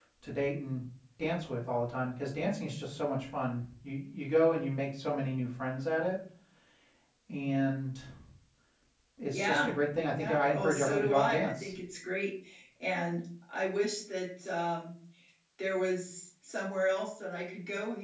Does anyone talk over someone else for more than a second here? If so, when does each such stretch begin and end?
10.2-11.8

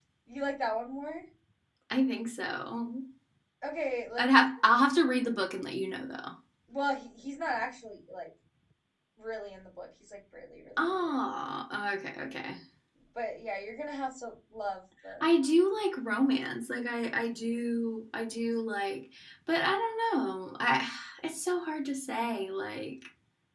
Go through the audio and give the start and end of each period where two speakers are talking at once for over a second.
none

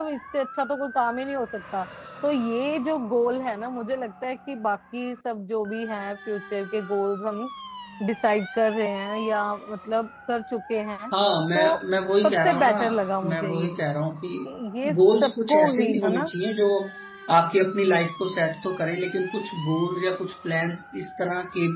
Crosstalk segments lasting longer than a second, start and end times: 11.5-12.8, 15.0-16.3

